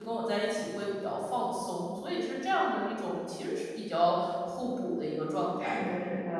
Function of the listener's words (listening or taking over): taking over